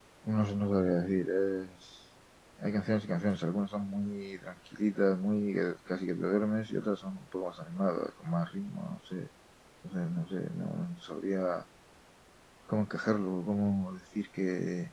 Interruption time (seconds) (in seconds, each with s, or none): none